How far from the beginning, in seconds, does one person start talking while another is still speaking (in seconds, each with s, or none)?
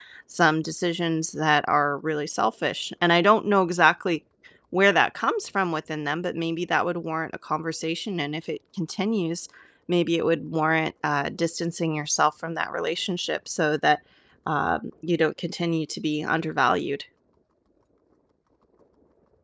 none